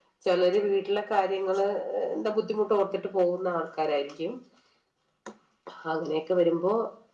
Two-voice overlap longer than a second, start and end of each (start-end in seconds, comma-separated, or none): none